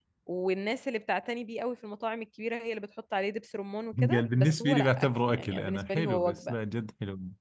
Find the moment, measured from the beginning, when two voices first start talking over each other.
3.9 s

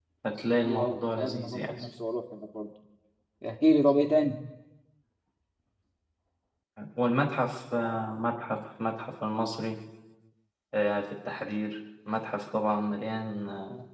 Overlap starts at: 0.6 s

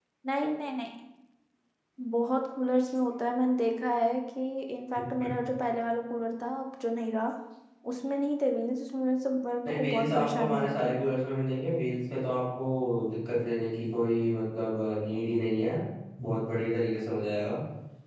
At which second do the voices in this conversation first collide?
9.7 s

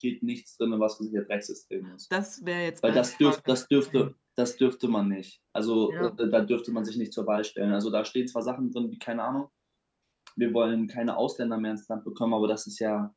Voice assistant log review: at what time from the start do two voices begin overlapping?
2.9 s

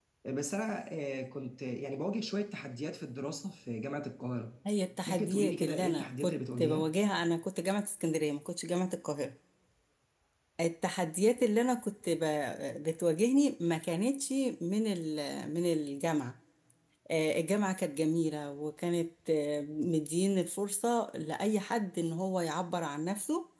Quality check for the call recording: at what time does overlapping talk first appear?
5.1 s

